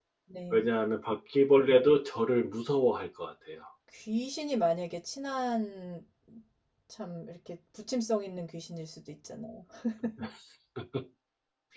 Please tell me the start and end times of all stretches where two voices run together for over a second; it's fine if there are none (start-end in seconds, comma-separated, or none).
none